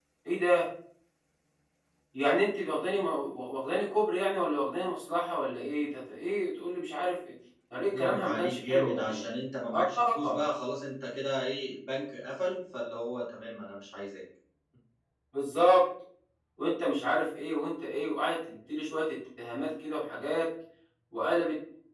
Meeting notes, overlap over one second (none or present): present